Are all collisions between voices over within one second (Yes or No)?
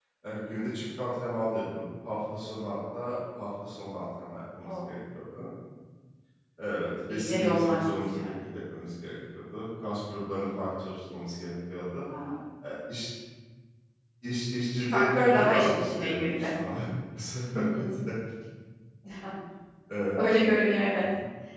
No